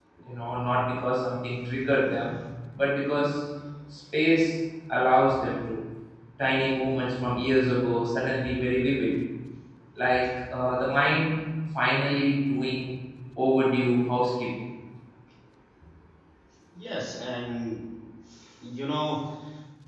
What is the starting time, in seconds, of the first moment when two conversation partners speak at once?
none

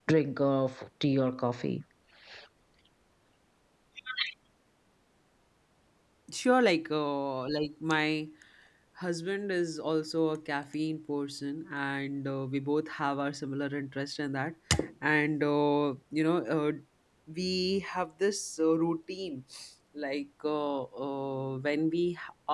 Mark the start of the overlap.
none

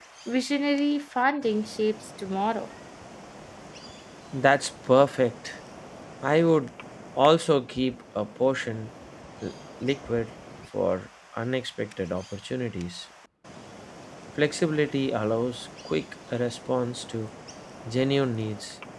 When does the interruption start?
none

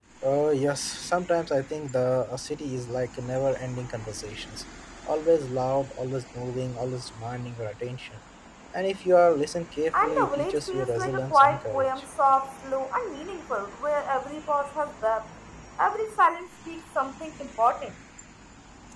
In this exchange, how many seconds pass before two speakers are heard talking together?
9.9 s

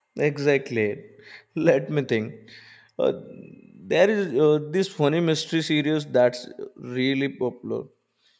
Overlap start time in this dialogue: none

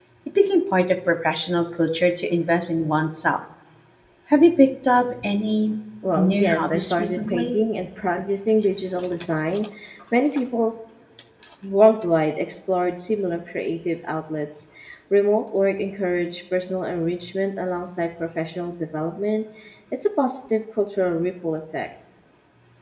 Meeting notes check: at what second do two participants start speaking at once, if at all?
6.2 s

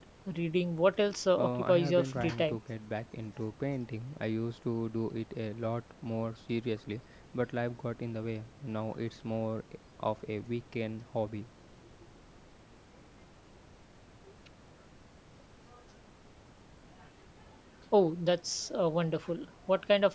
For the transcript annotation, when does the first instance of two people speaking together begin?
1.4 s

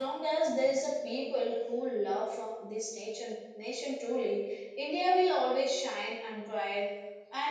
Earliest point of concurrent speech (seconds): none

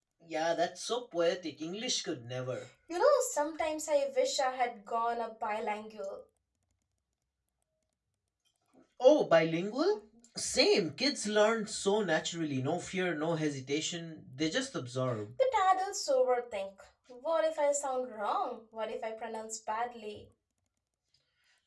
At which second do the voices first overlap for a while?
none

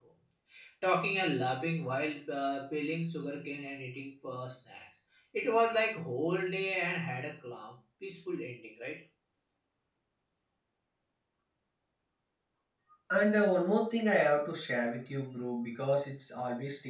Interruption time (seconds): none

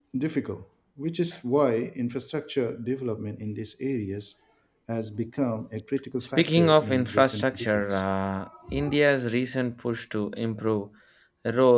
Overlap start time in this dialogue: 6.4 s

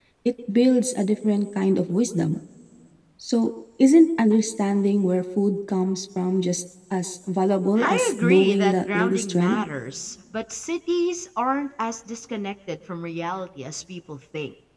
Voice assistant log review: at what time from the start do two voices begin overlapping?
7.8 s

